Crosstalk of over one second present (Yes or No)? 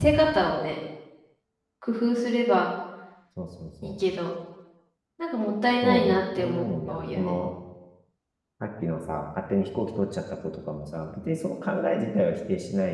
Yes